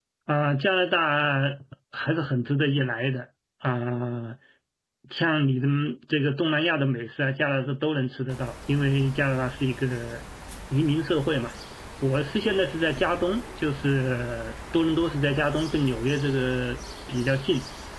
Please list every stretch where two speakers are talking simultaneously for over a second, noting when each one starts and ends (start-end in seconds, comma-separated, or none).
none